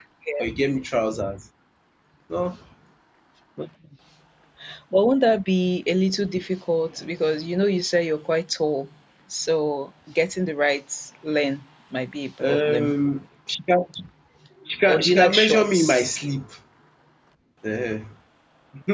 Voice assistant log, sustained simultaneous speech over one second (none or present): present